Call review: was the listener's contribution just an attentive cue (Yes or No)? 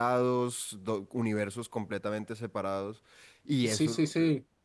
No